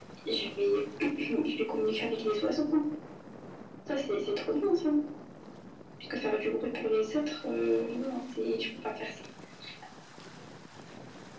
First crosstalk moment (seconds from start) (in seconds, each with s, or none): none